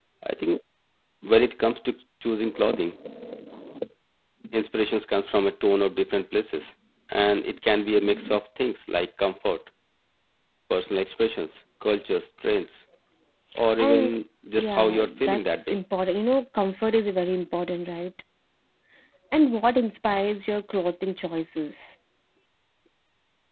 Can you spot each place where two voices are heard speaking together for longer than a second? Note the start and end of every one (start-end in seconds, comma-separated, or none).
14.6-15.8